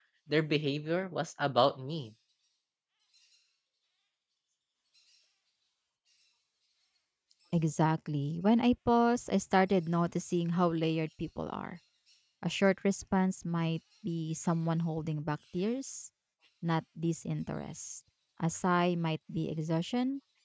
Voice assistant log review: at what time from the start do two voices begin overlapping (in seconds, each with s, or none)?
none